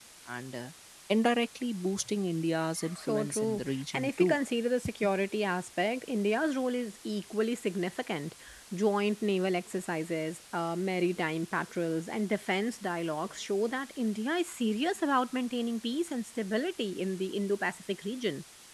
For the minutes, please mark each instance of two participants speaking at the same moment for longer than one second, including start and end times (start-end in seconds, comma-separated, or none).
3.0-4.4